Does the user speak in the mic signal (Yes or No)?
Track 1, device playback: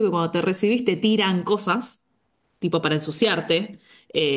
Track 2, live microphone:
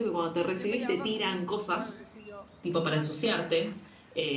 Yes